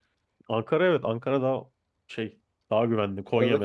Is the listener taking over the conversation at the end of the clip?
No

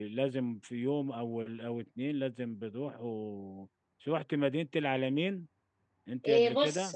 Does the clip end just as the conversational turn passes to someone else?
Yes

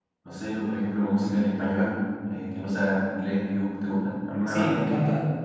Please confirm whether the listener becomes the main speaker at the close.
Yes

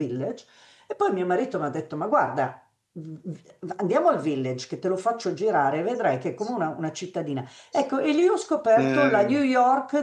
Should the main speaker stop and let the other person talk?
No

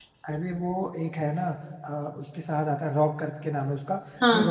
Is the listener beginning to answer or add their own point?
No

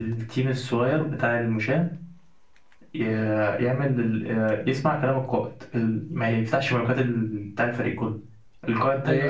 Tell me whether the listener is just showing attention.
Yes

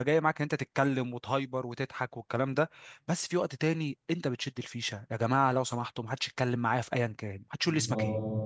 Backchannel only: No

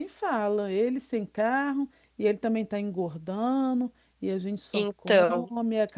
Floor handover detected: No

